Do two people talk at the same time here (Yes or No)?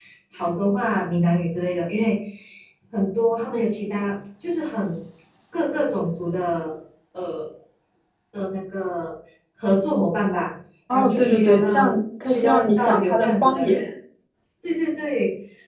Yes